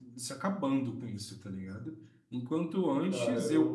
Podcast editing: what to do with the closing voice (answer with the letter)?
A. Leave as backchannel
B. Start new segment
A